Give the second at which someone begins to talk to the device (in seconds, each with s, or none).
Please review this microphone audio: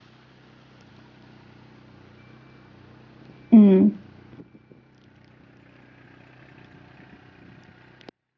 3.5 s